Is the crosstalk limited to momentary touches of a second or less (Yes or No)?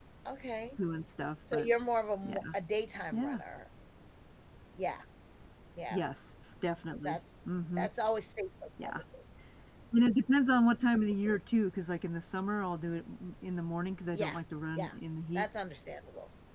Yes